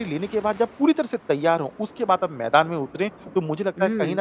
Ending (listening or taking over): listening